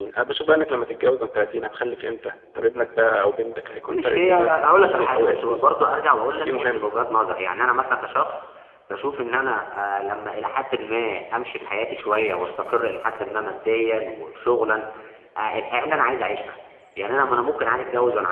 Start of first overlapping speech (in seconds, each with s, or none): 3.9 s